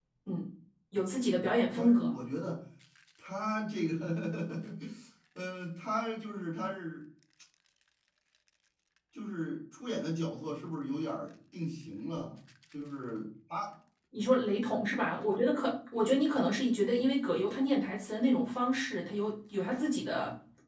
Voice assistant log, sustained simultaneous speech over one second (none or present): none